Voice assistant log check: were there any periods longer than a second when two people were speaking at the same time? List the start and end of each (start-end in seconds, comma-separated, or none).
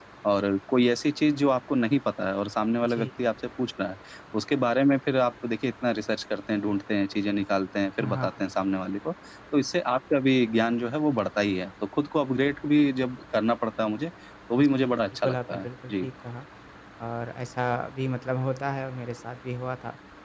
14.6-16.1